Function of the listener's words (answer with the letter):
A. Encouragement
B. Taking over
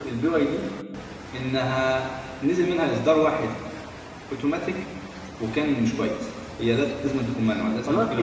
B